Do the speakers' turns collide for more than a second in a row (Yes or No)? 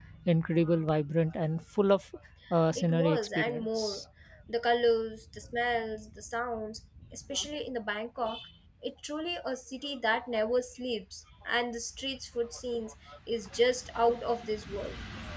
Yes